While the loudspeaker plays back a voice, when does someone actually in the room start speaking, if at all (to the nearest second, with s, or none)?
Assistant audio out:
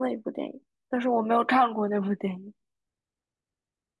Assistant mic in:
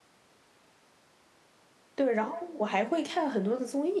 2 s